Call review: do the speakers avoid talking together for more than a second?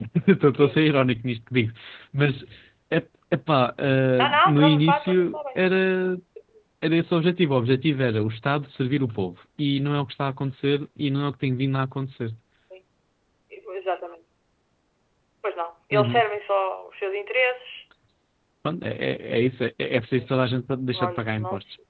No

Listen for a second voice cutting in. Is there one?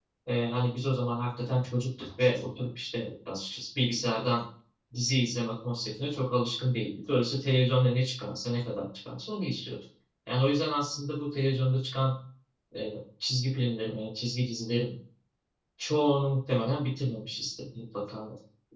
No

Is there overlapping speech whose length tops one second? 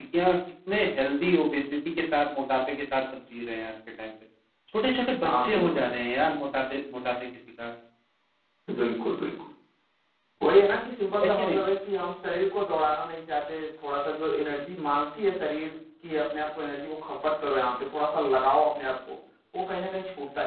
No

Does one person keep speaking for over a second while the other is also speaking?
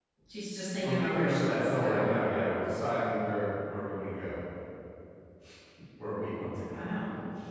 Yes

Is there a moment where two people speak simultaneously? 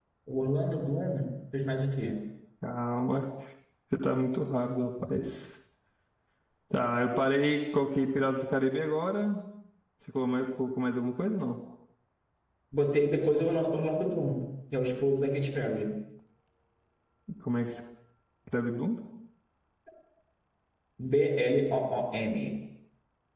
No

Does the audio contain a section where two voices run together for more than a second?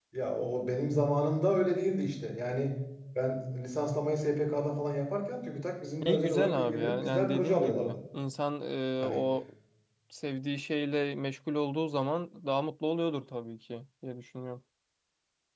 Yes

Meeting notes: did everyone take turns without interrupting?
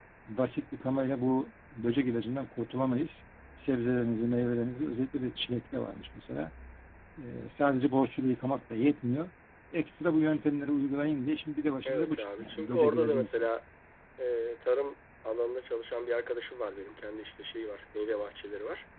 No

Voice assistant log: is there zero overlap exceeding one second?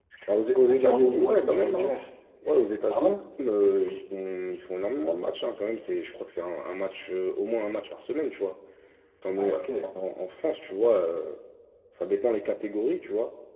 No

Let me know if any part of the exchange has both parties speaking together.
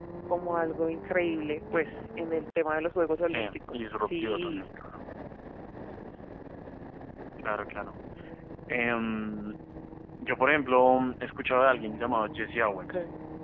Yes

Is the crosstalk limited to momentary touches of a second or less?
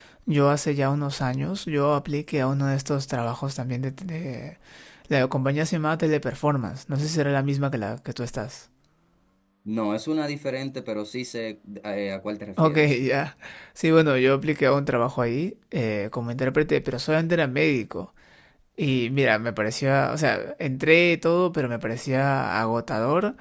Yes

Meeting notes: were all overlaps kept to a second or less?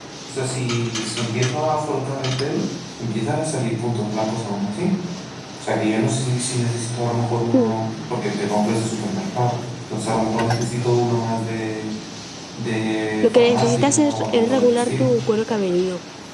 No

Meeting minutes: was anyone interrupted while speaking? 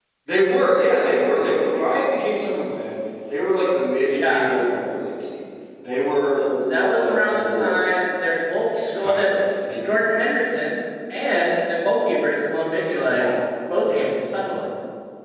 Yes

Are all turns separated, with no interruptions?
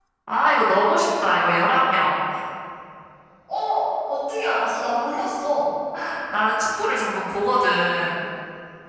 Yes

